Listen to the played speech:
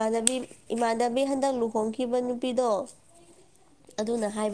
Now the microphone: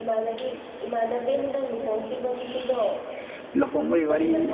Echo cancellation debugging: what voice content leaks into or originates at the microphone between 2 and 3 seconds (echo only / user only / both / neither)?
both